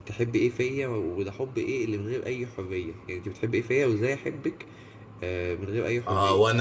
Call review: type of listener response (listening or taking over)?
taking over